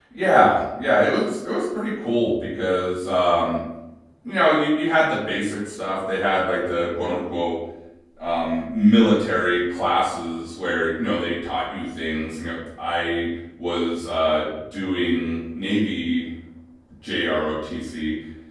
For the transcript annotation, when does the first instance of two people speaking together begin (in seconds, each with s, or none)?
none